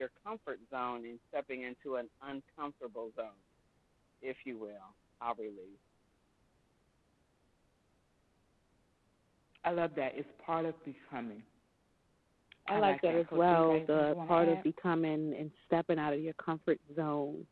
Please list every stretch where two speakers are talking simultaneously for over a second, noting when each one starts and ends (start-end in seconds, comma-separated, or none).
12.7-14.6